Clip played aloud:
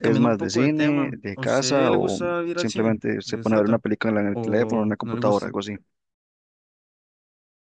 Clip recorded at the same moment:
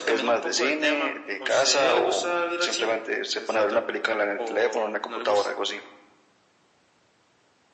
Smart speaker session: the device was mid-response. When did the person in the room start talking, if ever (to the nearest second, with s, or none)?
none